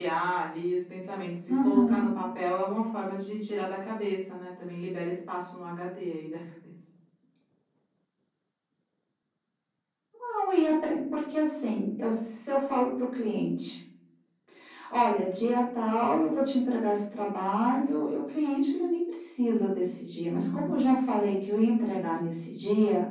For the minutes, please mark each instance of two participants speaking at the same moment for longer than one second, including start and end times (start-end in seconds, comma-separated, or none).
none